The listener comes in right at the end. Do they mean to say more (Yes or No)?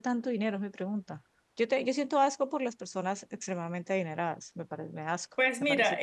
Yes